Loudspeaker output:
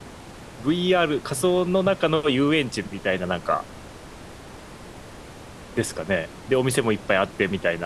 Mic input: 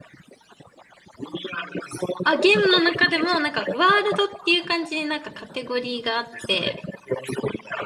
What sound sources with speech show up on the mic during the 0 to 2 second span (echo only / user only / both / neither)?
echo only